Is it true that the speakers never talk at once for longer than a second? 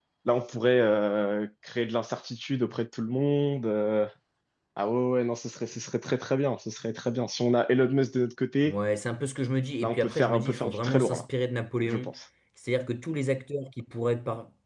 No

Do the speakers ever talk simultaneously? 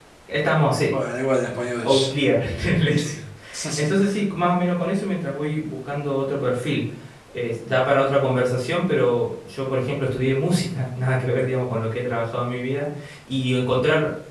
Yes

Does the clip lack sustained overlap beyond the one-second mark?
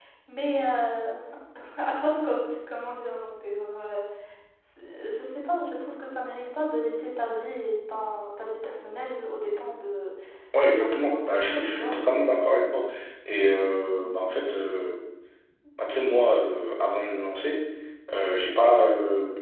No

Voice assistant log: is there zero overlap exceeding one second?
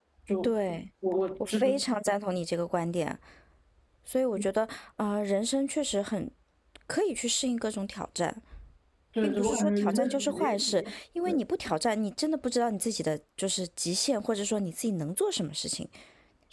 No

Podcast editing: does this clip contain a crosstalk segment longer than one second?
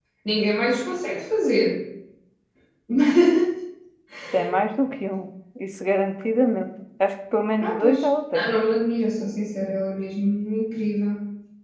No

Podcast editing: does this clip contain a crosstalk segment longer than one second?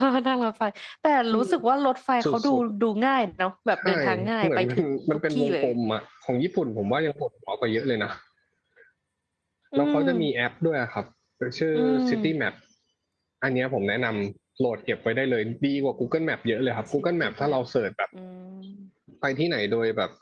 Yes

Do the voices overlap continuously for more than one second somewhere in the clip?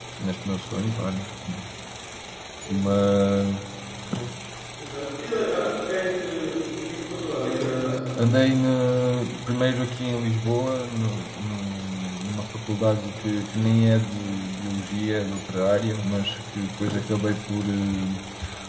No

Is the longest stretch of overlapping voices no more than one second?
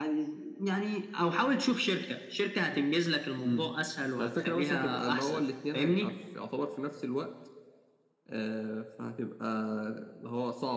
No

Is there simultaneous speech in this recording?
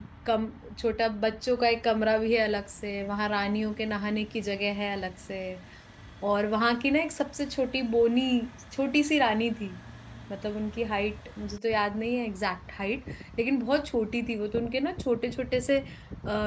No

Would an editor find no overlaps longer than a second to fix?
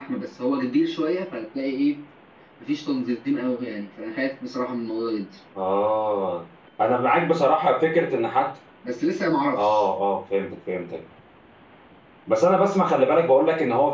Yes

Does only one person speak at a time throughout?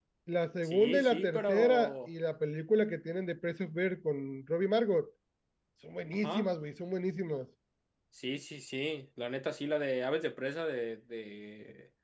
No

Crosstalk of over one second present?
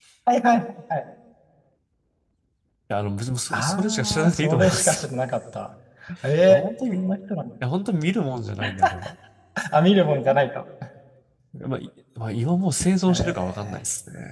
Yes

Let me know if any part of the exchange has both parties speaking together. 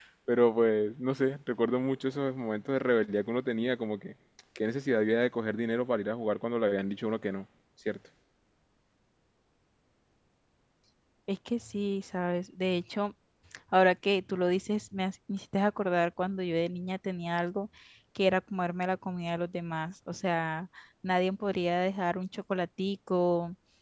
No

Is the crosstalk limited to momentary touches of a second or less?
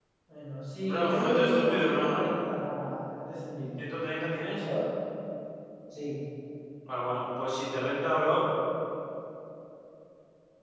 No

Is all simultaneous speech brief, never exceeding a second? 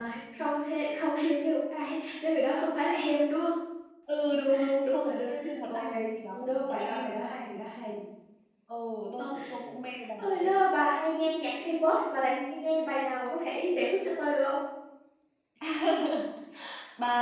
No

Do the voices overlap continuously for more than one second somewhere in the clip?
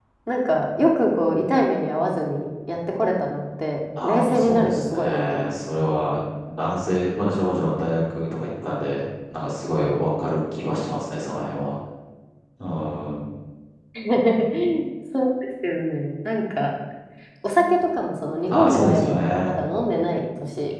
Yes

